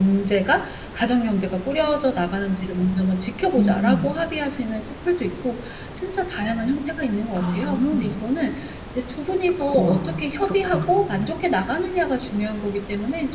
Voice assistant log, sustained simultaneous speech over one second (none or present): present